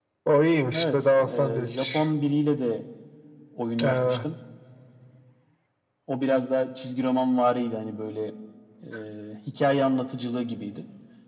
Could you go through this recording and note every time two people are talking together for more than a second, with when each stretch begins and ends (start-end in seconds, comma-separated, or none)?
0.7-2.0